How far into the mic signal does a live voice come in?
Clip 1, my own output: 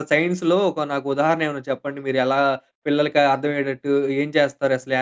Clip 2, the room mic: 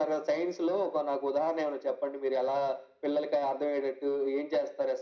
none

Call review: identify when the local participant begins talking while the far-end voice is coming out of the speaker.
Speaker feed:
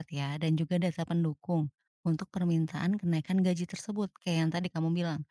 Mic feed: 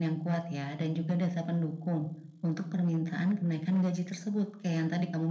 none

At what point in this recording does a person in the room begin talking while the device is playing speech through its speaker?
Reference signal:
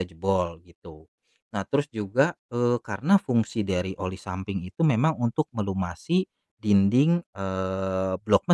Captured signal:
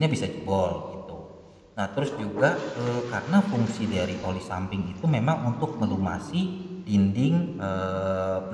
5.8 s

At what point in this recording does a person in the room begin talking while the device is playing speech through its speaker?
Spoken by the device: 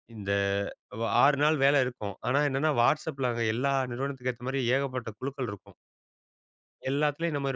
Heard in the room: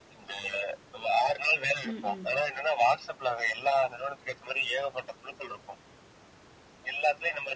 1.9 s

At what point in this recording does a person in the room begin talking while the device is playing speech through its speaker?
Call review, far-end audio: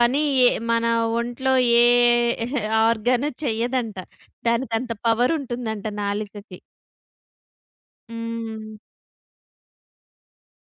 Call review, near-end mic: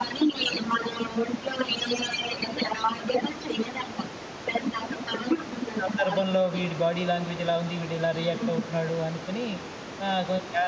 5.8 s

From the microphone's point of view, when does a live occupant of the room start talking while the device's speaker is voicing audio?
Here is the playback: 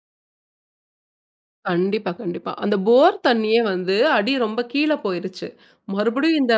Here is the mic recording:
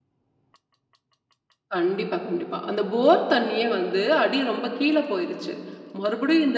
none

